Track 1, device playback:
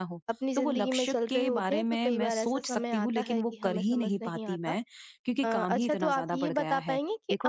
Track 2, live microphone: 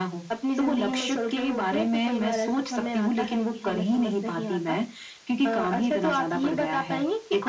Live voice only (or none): none